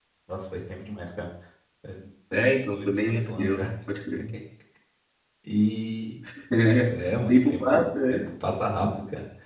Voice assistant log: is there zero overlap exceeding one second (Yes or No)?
No